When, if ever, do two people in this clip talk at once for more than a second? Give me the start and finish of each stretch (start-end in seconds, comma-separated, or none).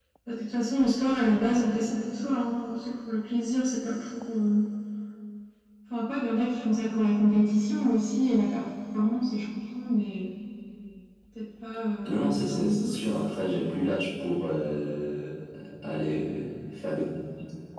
12.1-13.3